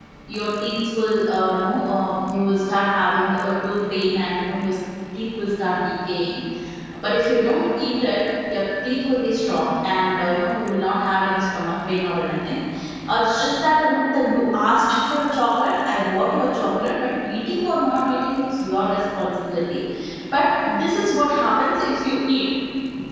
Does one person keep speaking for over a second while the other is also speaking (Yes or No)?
No